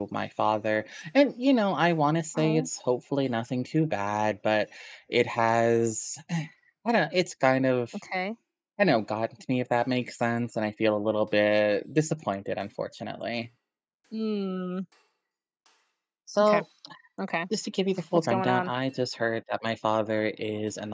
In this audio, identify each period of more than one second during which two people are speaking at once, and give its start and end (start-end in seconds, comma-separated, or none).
none